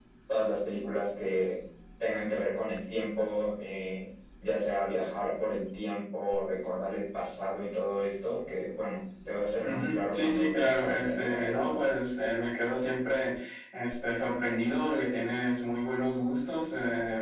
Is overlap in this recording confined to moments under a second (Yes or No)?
No